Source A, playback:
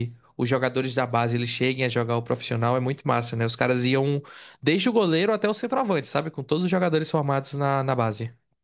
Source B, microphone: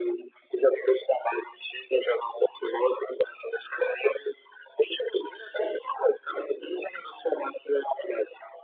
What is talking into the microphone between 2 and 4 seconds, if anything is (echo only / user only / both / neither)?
echo only